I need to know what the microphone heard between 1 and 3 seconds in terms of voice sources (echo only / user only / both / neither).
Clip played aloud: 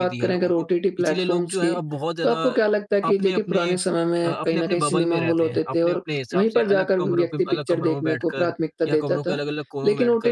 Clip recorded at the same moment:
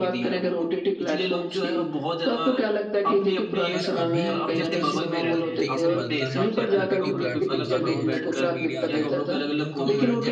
echo only